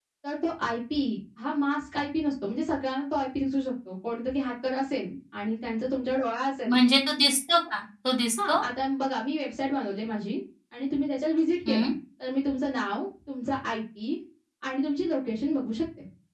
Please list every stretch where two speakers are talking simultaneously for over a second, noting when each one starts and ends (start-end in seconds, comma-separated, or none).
none